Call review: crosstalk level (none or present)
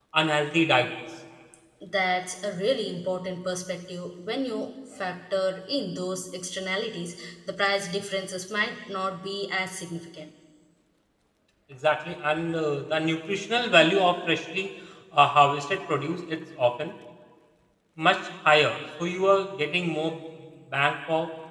none